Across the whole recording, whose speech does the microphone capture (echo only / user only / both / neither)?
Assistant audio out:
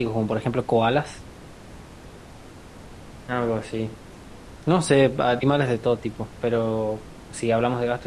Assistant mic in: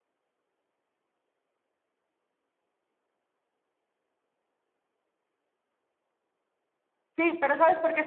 user only